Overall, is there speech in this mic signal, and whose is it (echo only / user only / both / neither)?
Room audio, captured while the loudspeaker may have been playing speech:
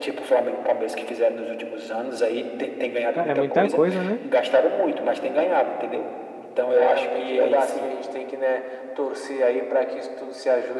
both